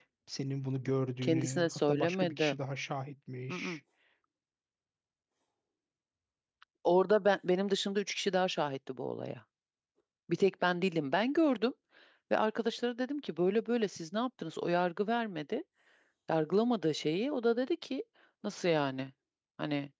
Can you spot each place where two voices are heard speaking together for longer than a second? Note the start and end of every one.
1.2-2.6

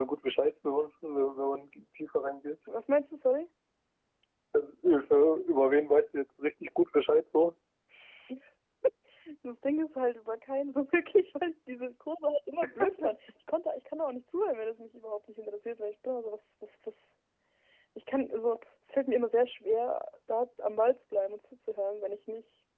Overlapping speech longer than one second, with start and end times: none

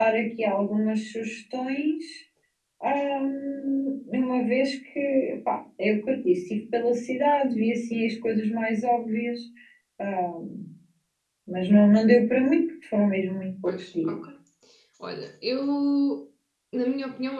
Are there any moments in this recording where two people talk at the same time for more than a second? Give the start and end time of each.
none

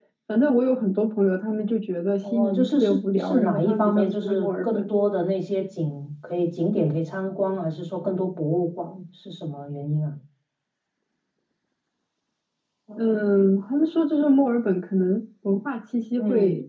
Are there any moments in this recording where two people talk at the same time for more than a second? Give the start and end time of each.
2.2-4.9

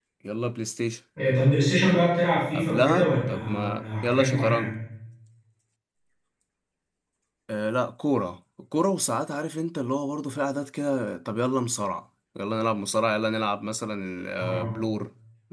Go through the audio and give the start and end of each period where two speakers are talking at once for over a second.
2.5-4.7

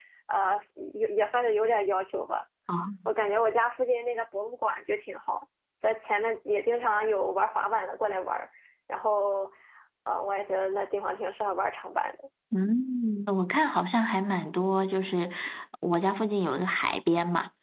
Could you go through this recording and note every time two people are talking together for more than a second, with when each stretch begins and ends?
none

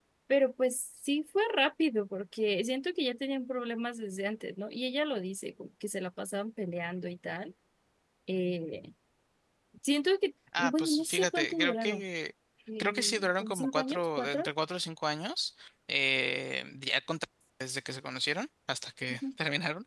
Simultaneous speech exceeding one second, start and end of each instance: 10.6-12.0, 12.8-14.4

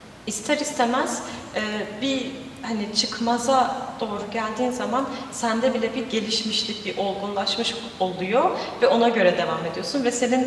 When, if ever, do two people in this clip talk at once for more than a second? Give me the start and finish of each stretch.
none

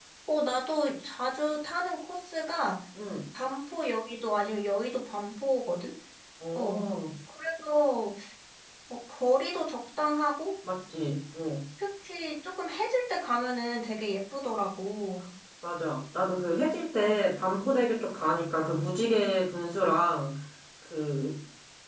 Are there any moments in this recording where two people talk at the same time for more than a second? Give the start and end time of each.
none

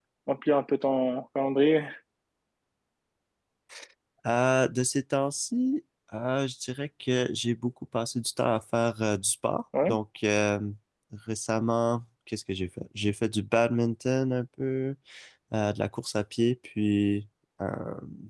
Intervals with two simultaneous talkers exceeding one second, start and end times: none

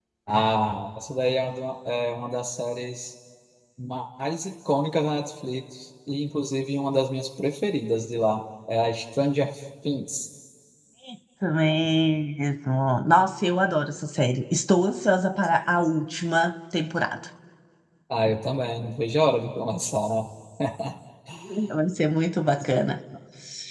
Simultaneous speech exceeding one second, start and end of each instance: none

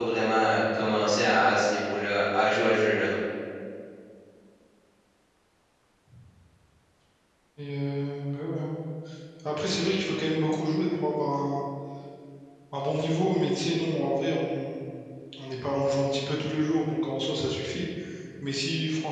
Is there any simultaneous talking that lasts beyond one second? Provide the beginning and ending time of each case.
none

